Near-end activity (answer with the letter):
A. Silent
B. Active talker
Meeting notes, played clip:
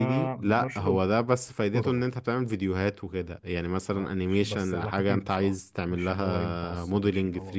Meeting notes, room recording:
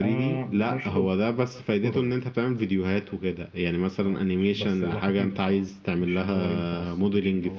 A